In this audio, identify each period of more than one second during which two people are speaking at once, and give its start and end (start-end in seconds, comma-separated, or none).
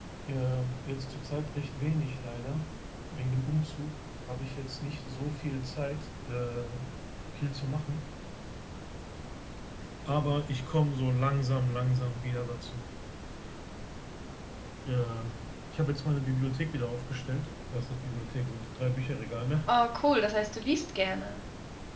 none